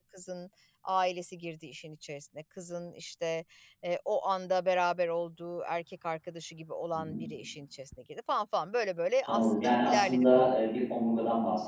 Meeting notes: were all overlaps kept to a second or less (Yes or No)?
No